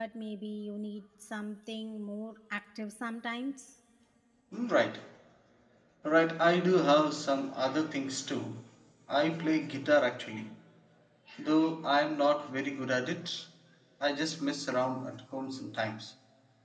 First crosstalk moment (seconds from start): none

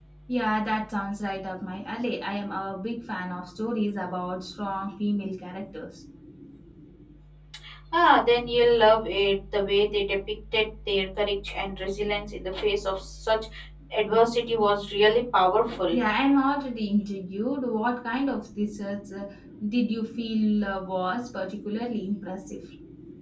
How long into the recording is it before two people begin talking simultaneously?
none

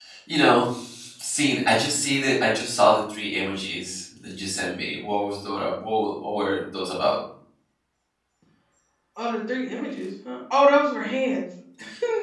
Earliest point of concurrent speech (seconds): none

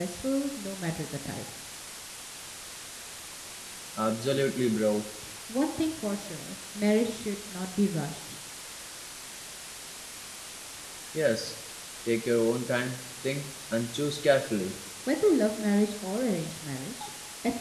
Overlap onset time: none

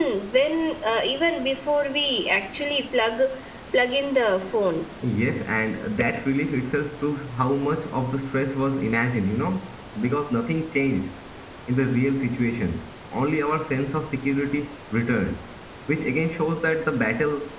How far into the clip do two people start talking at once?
none

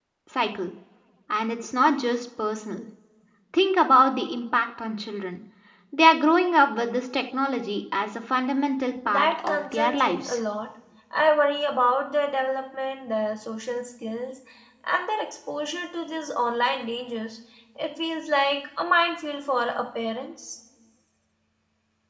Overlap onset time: 9.0 s

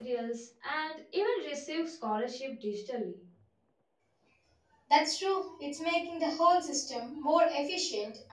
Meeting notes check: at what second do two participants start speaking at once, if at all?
none

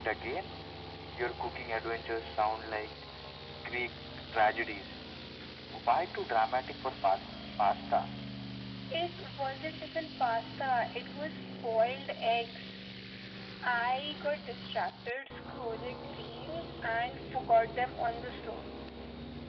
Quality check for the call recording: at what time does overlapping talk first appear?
none

